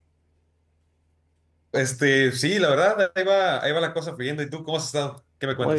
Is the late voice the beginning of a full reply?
Yes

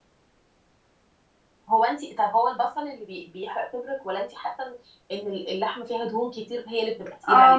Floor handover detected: Yes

